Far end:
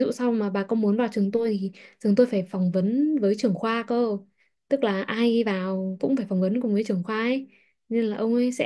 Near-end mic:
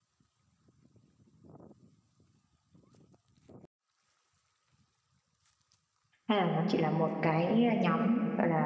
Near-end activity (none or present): present